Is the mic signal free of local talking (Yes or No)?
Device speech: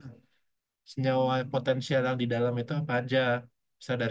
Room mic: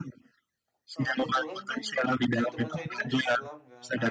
No